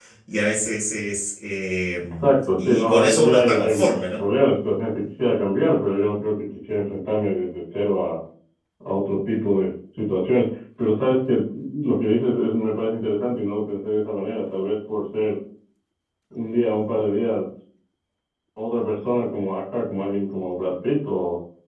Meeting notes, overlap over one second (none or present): present